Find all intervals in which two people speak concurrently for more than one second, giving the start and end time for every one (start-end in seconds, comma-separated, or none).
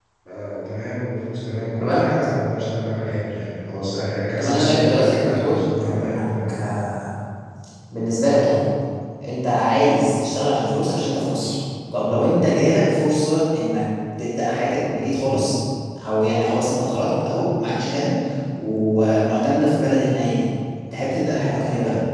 4.4-6.6